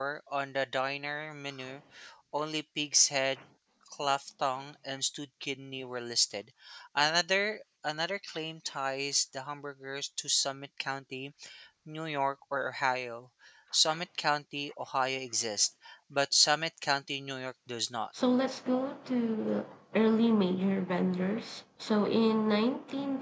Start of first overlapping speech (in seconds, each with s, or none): none